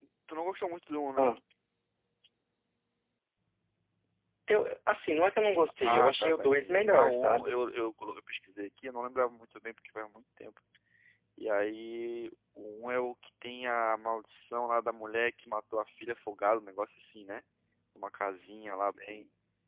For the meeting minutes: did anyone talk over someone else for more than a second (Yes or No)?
Yes